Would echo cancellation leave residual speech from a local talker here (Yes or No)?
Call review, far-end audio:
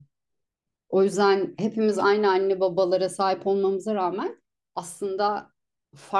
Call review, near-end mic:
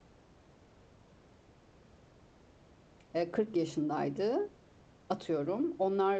Yes